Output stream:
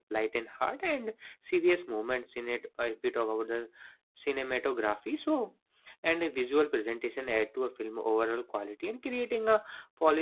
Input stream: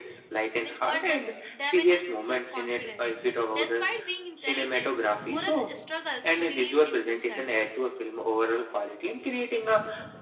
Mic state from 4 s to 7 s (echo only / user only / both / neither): both